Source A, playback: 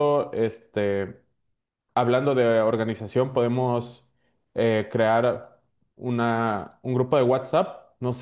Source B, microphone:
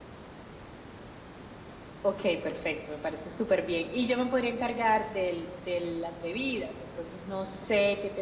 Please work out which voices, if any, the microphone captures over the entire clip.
user only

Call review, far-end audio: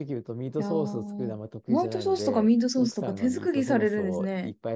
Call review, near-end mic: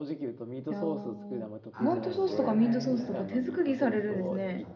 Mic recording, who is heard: both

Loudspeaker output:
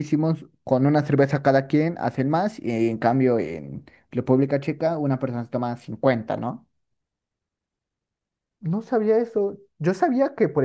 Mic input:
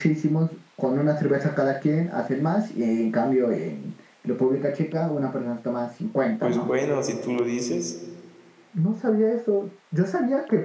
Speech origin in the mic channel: both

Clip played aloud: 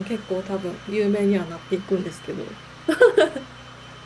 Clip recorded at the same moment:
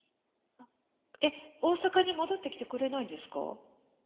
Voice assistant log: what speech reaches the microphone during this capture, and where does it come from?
user only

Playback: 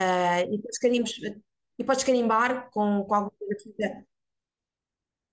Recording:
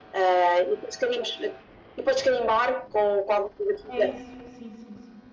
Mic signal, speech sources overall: both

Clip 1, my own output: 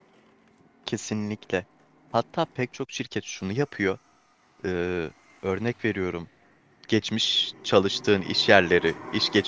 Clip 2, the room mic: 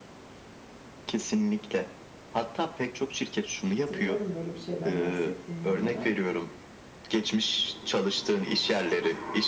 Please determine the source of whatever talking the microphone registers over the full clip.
both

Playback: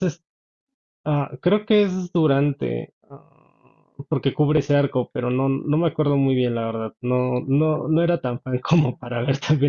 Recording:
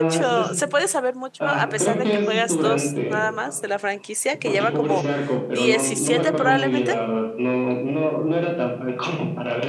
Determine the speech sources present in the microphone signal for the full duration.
both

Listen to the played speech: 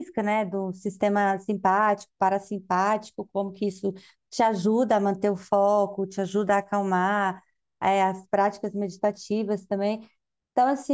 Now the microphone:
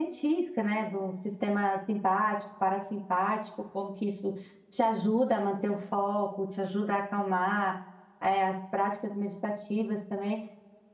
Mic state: echo only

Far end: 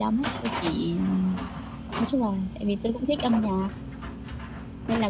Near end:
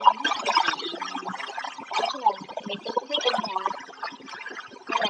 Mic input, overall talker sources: echo only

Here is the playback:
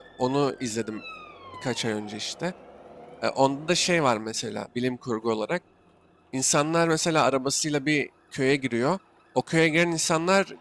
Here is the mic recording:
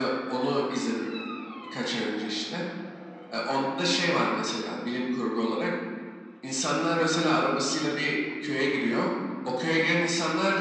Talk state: echo only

